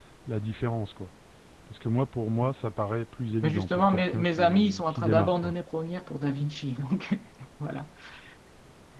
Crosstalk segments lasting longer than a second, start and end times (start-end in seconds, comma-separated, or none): 3.4-5.5